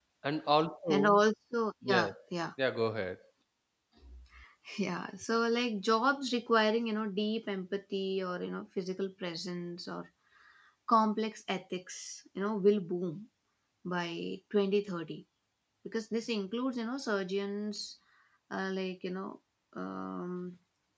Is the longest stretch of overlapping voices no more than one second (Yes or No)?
Yes